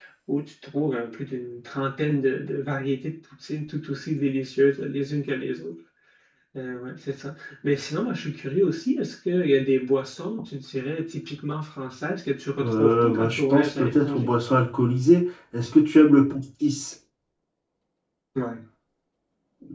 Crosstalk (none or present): present